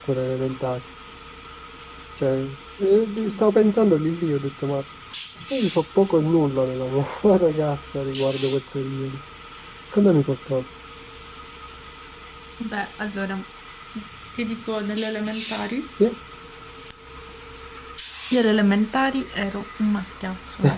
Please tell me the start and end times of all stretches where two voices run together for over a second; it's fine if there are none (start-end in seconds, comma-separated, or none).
none